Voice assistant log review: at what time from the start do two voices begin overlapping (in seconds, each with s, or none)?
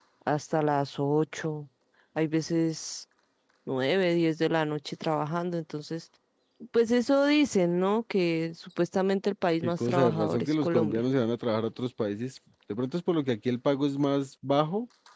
9.6 s